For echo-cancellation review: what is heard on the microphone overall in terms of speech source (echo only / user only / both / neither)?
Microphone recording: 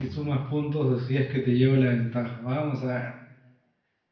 user only